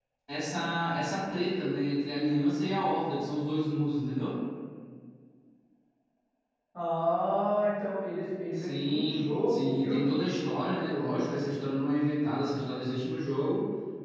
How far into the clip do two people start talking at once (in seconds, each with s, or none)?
8.5 s